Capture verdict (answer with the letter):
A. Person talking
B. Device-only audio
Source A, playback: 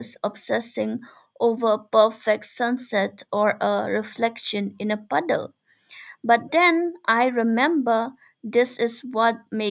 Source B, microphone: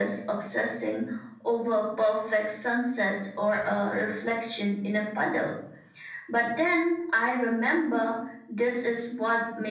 B